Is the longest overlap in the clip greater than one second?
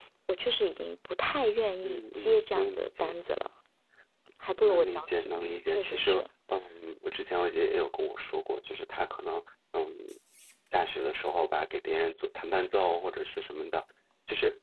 Yes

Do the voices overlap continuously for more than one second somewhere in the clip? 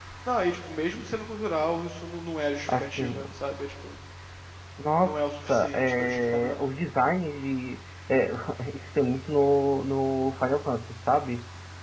Yes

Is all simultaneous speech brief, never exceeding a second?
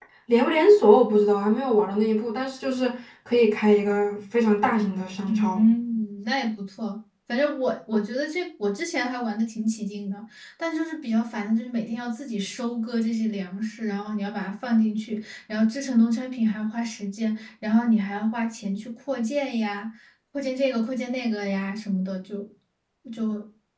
Yes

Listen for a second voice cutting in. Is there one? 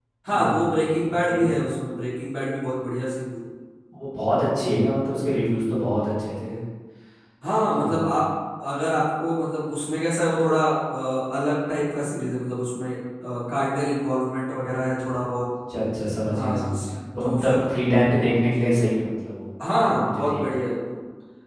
Yes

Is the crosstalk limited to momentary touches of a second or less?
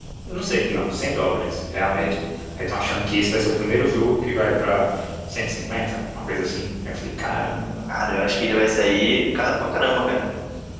Yes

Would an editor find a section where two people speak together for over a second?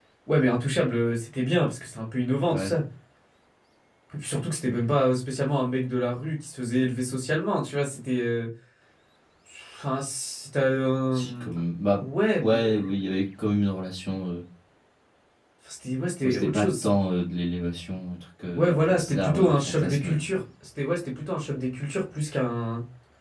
Yes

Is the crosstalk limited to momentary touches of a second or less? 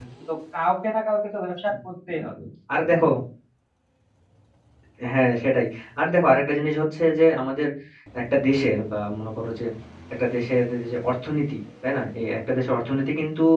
Yes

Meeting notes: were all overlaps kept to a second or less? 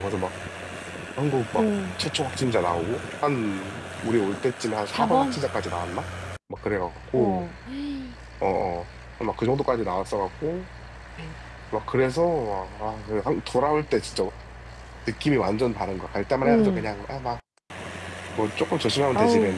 Yes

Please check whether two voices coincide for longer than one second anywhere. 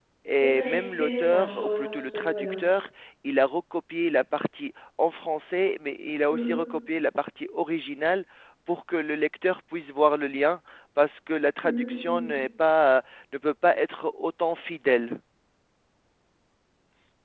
Yes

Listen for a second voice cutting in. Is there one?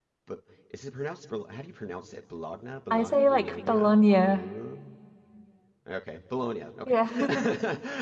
Yes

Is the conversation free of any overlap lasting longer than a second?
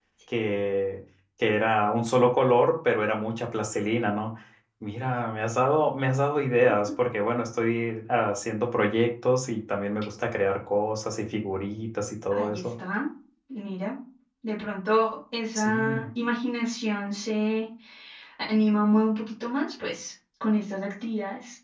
Yes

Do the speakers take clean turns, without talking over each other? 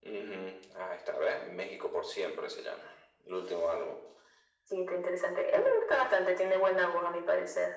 Yes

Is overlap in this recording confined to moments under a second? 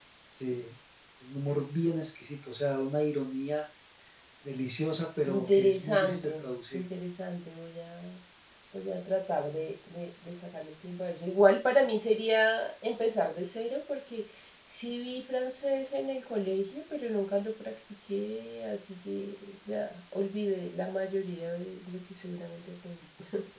No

